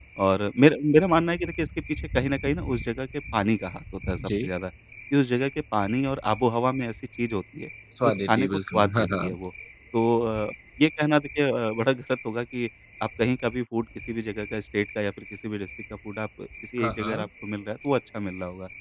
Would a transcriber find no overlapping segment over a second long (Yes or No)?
No